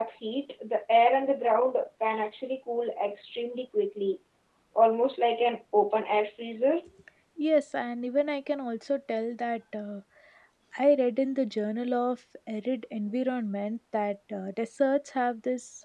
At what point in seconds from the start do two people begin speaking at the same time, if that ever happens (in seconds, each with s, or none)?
none